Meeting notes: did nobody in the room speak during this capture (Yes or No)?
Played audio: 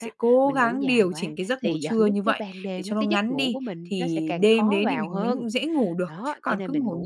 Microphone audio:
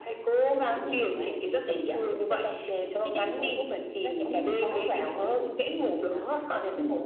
No